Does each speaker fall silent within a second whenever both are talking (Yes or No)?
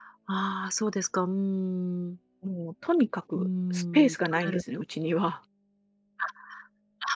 No